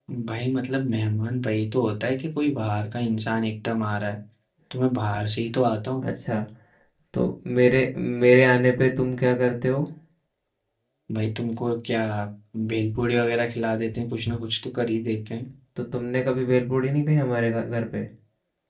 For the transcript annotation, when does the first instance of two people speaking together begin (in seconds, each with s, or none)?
none